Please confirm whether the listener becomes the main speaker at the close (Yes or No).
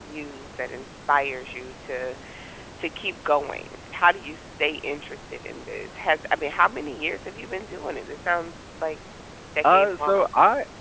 Yes